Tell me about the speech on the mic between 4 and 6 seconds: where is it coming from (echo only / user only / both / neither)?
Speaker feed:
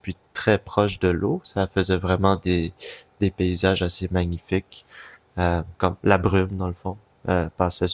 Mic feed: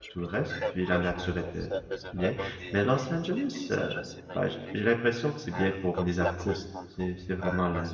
both